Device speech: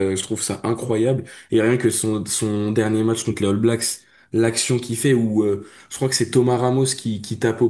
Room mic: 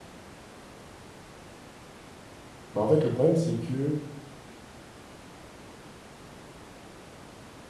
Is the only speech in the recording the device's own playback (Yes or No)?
No